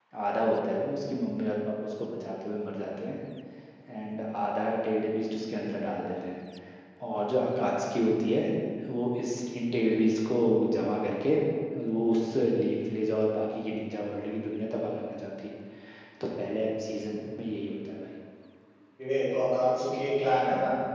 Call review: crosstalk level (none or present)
none